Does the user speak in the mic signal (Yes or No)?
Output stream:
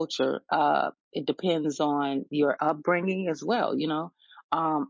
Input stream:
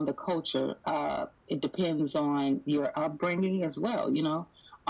No